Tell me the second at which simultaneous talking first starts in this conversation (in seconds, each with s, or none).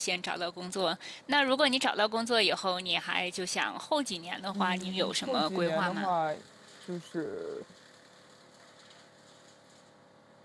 4.5 s